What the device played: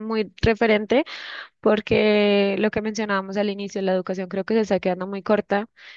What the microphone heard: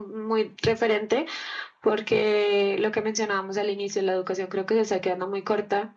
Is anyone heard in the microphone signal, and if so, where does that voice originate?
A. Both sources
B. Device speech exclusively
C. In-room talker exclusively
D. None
B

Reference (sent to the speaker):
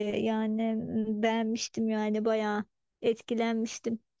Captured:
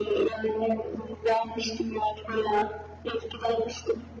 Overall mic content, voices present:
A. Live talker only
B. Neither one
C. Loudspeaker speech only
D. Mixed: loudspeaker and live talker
C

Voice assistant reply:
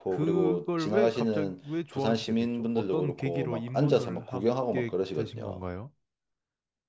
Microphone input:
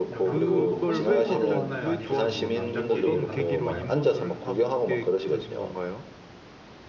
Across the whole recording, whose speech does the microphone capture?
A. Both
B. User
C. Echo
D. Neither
A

